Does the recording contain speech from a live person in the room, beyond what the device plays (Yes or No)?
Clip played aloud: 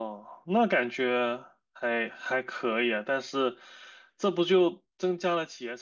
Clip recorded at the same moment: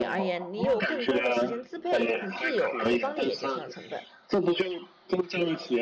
Yes